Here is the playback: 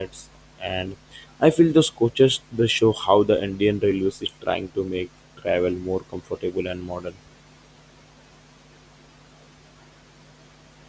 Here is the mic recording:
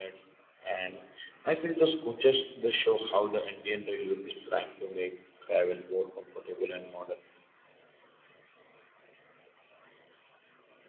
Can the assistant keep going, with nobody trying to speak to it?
Yes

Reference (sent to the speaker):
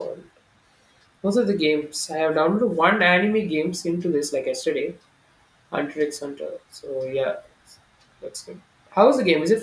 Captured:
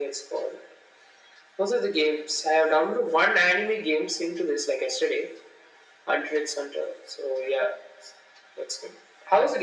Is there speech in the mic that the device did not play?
No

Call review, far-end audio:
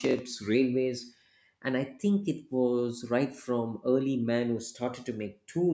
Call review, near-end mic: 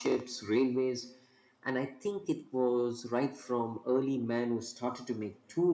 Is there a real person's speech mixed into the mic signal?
No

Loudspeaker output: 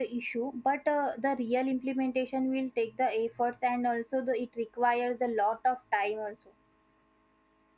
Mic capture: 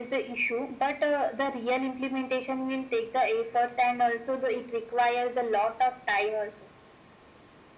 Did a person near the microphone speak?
No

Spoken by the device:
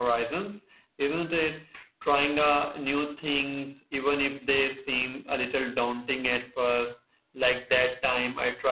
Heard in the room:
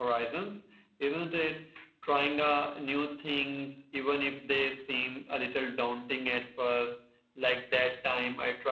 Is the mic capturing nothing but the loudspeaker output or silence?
Yes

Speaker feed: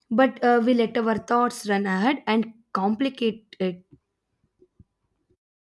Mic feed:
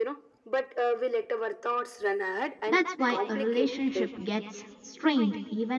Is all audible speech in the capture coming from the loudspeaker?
No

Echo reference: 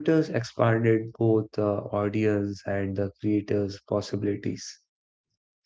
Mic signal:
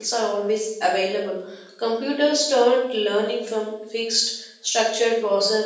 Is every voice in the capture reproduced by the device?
No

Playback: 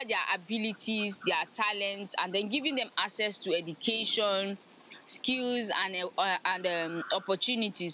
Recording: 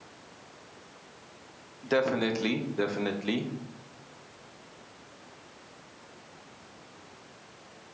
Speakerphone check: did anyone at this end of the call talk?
Yes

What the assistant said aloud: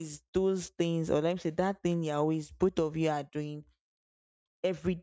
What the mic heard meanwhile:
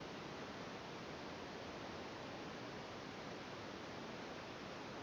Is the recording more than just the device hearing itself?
No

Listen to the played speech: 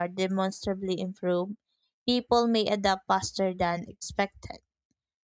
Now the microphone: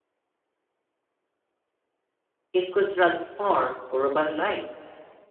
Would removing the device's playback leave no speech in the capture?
No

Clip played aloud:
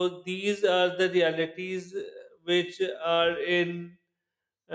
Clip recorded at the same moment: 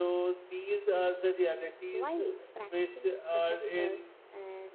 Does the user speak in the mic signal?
Yes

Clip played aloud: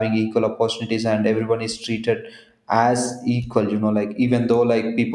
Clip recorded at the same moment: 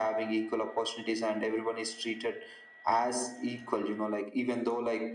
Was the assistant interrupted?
No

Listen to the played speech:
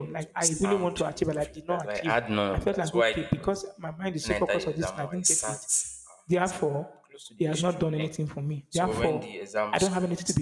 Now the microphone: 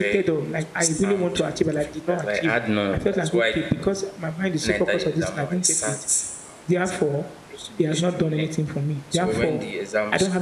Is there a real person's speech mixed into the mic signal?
No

